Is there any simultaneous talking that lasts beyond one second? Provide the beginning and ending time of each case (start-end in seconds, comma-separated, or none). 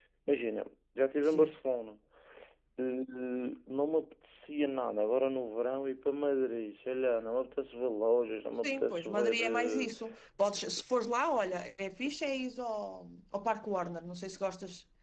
8.6-9.9